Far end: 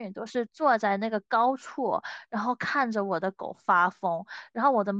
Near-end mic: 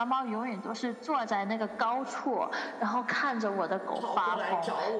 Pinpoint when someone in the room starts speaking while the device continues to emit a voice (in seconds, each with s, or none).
3.9 s